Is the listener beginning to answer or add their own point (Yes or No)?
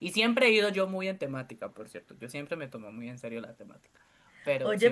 Yes